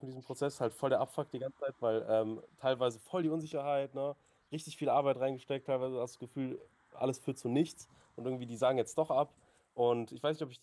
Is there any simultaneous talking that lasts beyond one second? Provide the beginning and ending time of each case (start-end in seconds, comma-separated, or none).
none